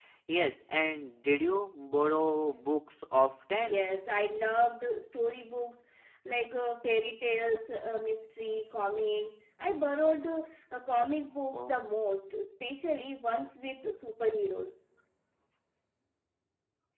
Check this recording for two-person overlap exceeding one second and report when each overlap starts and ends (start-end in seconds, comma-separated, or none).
none